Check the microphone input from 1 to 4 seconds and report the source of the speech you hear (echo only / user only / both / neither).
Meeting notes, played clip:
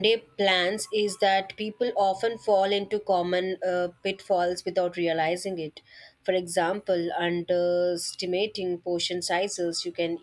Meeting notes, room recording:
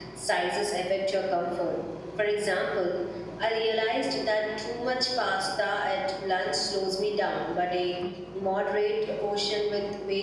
user only